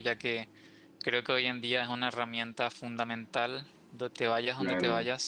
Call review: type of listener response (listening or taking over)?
taking over